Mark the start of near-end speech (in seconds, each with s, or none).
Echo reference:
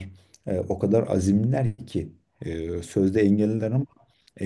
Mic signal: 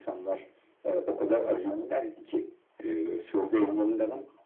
none